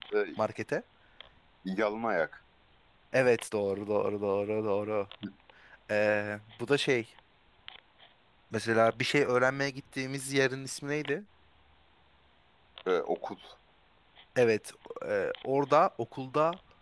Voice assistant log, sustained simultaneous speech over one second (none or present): none